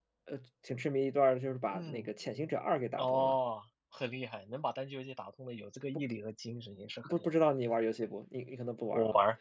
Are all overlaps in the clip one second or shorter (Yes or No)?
Yes